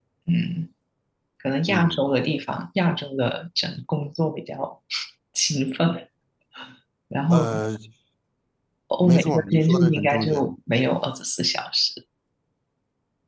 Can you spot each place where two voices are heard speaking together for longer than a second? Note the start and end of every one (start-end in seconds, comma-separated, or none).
9.0-10.4